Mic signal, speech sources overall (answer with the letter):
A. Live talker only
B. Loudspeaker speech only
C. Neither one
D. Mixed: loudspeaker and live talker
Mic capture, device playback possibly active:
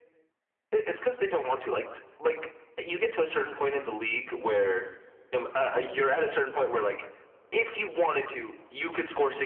B